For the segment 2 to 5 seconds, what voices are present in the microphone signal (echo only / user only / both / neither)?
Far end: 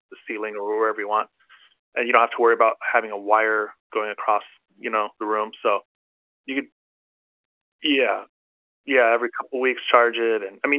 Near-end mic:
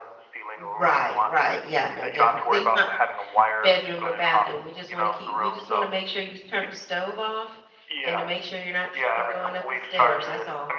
both